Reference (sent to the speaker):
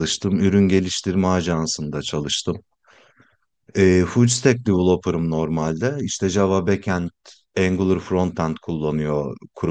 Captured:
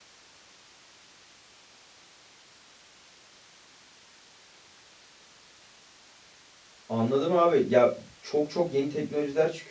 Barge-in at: 6.9 s

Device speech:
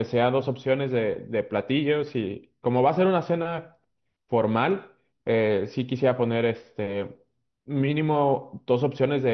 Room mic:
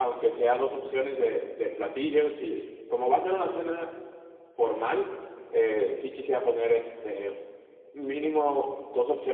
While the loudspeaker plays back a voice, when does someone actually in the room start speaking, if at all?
none

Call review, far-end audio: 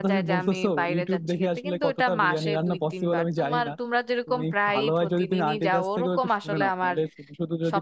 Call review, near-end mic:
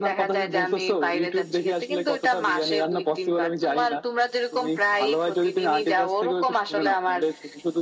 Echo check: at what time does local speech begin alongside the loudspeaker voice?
none

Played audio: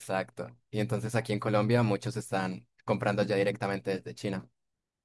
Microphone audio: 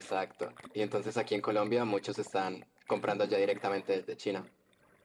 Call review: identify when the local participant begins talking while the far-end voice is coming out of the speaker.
none

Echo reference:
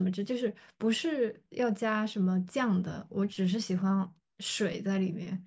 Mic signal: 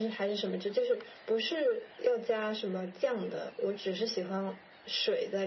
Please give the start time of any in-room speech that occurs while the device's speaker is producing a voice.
none

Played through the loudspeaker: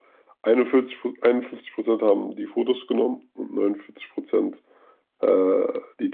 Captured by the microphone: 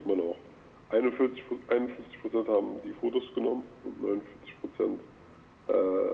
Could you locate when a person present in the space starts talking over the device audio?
none

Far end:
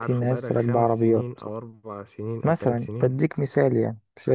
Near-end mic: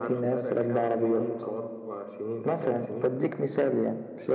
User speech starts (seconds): none

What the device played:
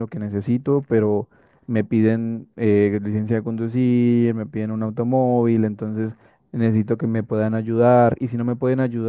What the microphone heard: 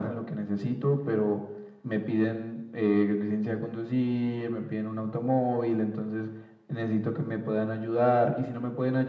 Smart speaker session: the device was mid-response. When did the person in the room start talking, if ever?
none

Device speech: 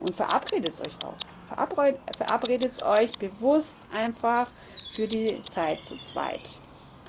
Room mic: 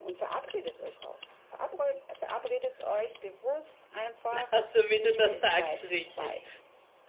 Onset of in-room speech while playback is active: 4.3 s

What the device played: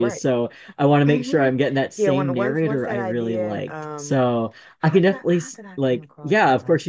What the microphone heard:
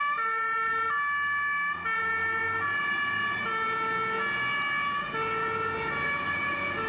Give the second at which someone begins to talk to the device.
none

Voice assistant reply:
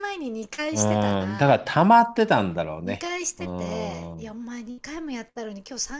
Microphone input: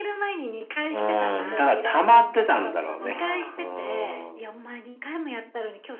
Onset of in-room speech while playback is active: 1.2 s

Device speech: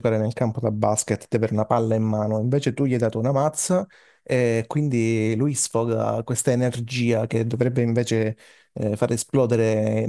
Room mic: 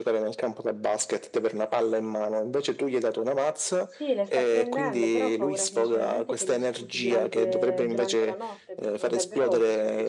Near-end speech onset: 3.8 s

